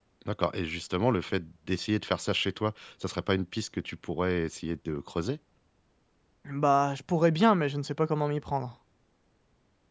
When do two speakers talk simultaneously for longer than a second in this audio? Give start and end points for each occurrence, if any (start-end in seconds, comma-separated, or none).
none